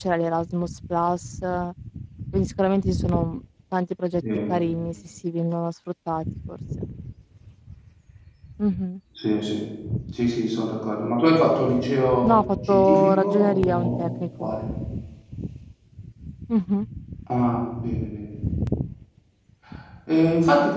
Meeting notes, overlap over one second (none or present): present